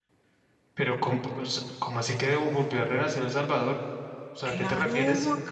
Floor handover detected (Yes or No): Yes